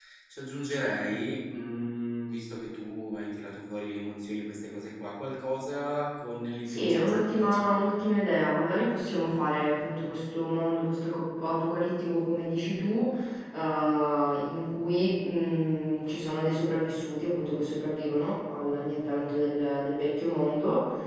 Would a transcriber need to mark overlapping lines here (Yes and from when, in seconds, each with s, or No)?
Yes, from 6.7 s